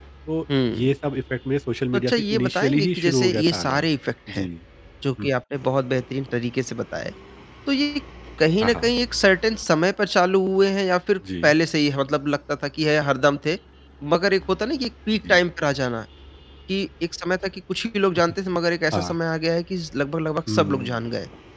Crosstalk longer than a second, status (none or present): present